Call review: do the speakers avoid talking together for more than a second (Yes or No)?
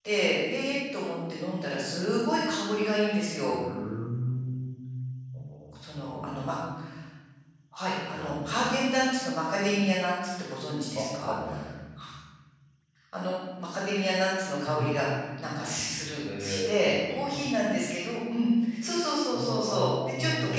No